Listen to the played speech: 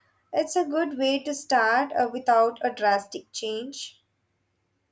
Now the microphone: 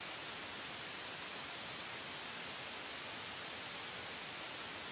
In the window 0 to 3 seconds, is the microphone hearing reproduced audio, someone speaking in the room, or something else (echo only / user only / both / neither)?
neither